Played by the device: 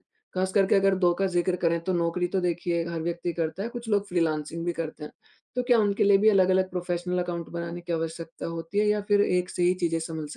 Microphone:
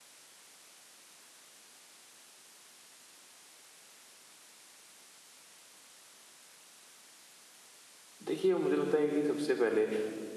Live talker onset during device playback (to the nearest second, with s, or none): 8 s